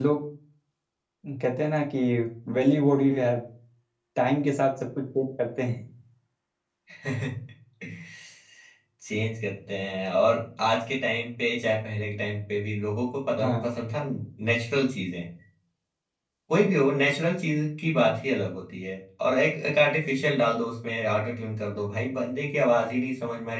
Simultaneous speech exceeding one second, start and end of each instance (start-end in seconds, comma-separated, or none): none